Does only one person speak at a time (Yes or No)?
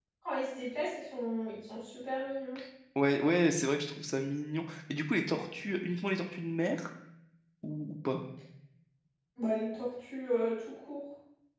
Yes